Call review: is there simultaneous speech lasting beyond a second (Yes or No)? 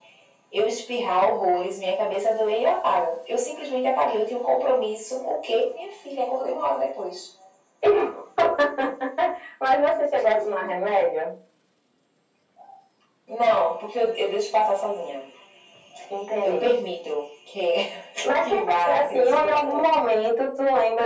Yes